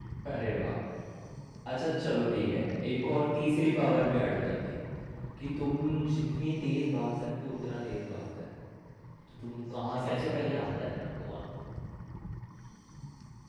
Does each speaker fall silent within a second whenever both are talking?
No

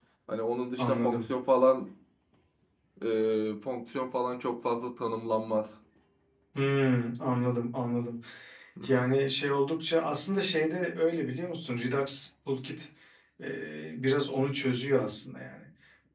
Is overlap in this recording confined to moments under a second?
Yes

